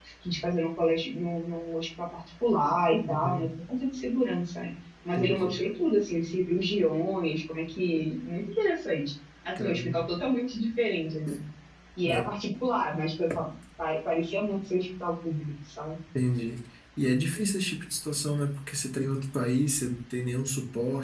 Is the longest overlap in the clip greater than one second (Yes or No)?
No